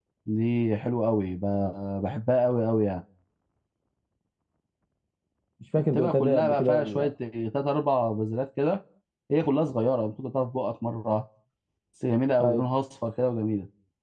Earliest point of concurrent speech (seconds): 5.8 s

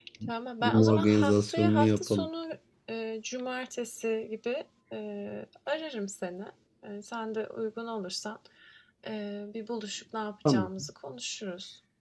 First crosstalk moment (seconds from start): 0.6 s

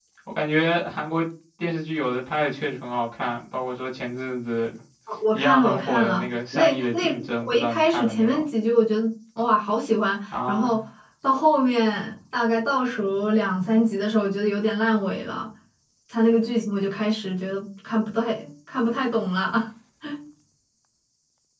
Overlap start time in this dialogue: 5.3 s

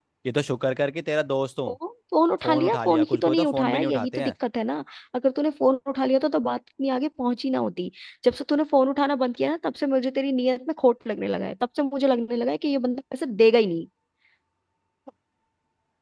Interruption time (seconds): 2.4 s

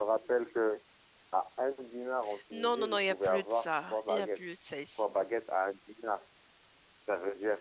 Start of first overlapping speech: 2.5 s

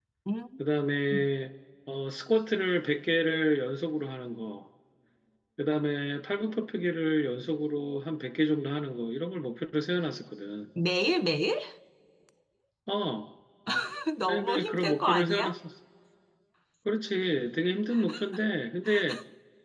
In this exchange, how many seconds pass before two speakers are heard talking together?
14.2 s

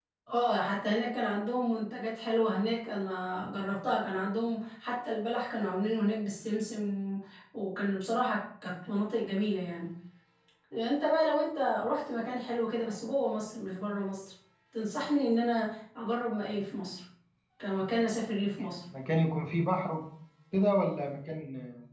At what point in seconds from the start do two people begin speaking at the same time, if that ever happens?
none

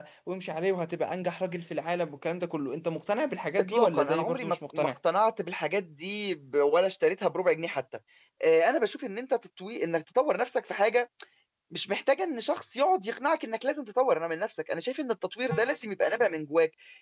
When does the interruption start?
3.6 s

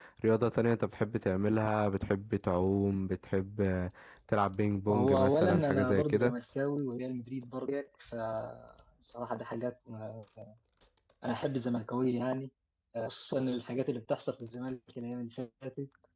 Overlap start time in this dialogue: 4.9 s

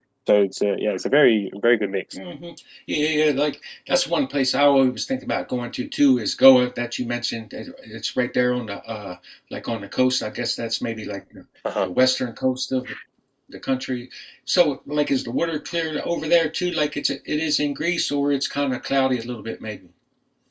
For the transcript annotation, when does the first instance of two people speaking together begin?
none

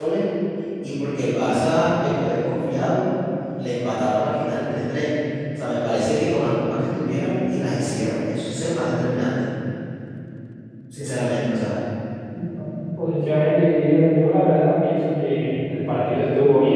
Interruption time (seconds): none

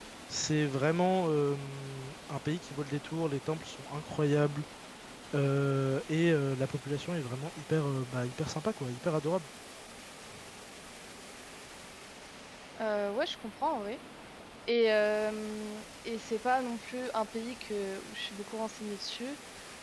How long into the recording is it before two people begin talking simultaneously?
none

